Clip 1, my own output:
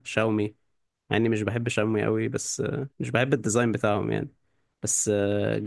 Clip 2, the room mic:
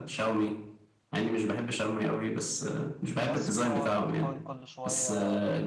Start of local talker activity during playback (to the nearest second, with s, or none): 3 s